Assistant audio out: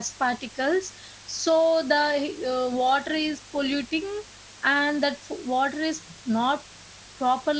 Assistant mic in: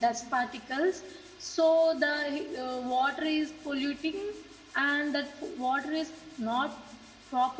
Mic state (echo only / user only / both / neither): echo only